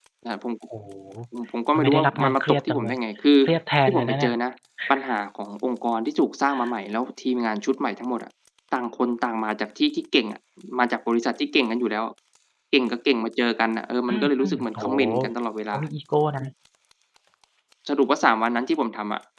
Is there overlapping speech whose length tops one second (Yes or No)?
Yes